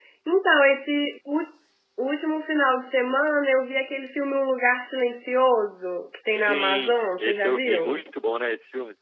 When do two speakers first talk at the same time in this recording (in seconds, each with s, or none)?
6.3 s